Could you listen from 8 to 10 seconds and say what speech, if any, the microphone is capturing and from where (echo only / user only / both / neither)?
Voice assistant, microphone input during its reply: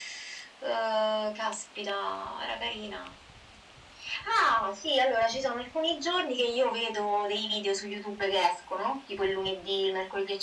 echo only